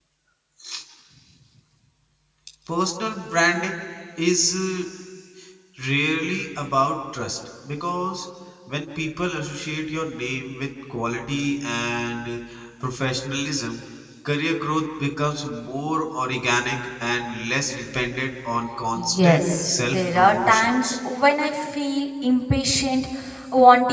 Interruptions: present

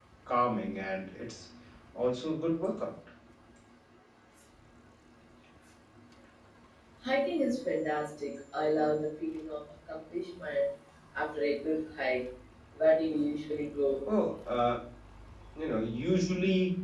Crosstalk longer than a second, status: none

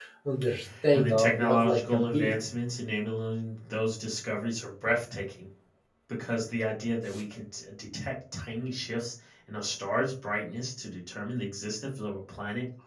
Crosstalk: present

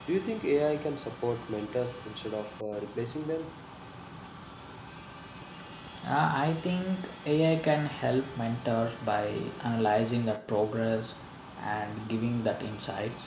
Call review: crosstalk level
none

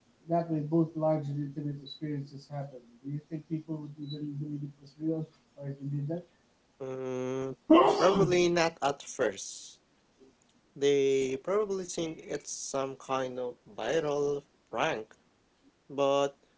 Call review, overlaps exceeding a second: none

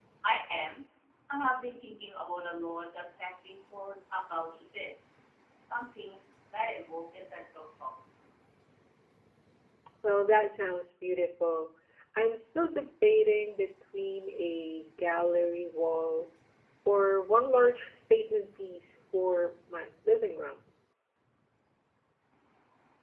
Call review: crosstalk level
none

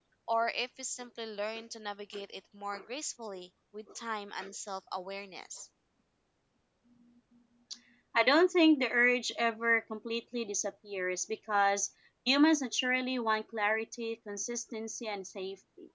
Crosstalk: none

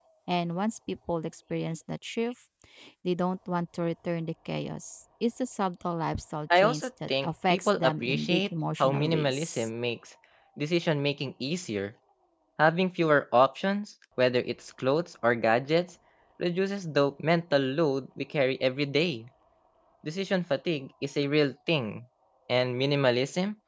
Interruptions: present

